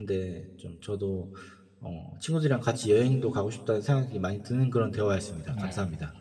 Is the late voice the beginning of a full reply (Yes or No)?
Yes